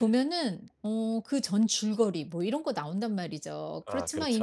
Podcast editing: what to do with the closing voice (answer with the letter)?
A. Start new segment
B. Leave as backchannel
B